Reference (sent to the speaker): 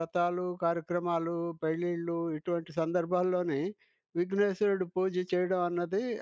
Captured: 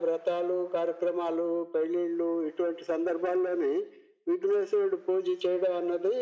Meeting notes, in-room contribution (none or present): none